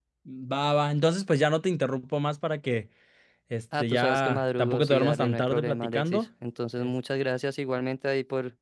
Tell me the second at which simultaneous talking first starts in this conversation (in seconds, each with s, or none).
3.8 s